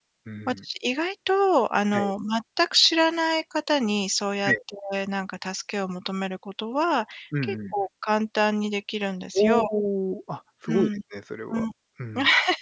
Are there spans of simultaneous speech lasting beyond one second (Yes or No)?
No